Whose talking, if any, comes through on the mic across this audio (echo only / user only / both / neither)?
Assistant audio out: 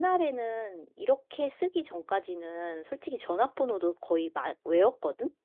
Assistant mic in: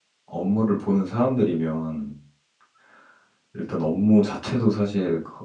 user only